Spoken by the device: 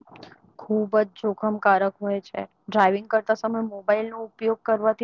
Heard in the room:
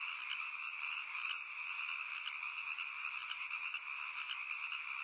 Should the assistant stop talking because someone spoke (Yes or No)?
No